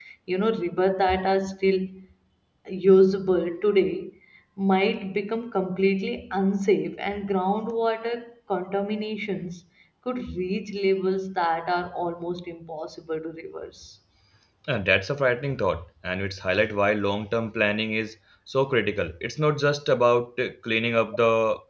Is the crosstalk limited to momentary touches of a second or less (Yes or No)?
Yes